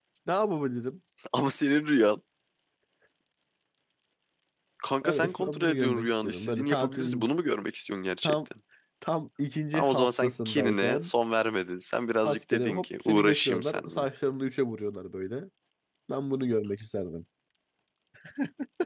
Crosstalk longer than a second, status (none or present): present